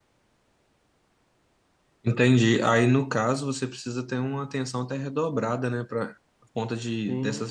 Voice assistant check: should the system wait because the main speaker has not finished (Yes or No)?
Yes